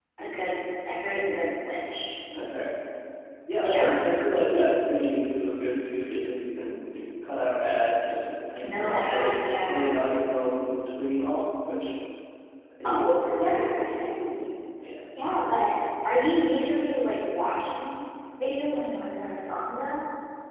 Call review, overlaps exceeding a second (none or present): present